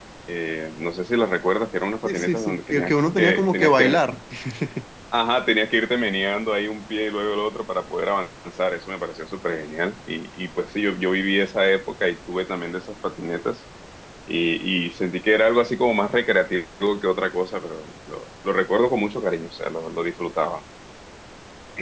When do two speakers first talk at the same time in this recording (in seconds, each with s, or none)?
2.0 s